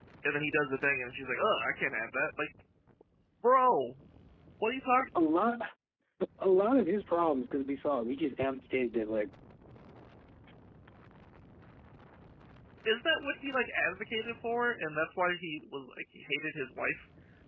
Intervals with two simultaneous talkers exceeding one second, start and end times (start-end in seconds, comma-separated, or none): none